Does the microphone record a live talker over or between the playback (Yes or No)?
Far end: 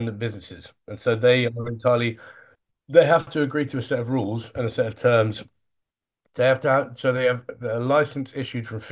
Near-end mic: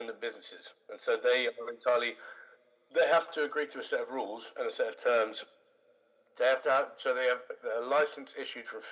No